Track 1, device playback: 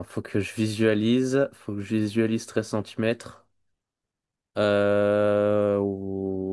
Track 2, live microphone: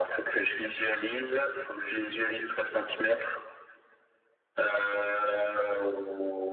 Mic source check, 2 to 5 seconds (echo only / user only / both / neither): echo only